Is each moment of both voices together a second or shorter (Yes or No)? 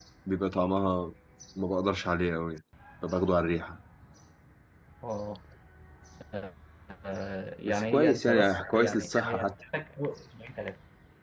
No